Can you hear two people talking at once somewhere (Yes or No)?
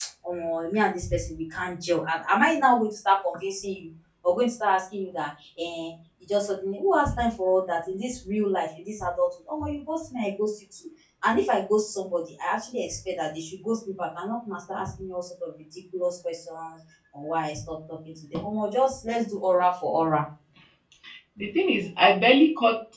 No